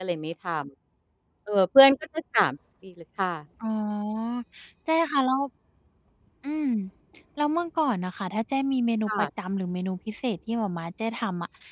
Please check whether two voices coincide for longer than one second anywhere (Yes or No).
No